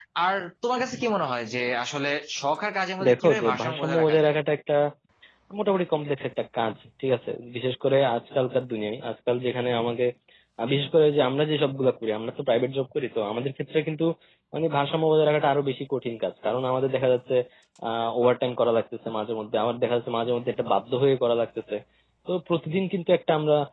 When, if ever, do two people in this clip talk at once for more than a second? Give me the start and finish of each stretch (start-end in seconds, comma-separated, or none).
3.1-4.3